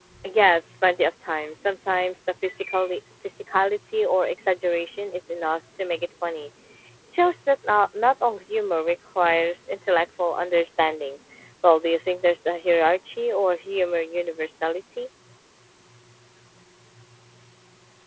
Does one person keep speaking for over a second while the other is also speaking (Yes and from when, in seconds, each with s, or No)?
No